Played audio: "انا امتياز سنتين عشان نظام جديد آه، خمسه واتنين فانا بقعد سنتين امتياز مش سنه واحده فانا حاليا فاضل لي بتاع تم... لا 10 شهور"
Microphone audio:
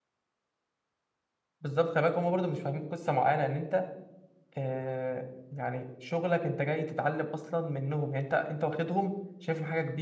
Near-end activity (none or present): present